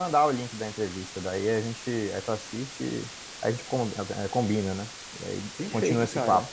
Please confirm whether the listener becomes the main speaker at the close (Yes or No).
Yes